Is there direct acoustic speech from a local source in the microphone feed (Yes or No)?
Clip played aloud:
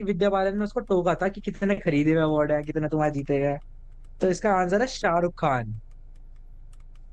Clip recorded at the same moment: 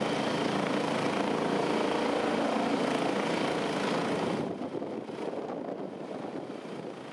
No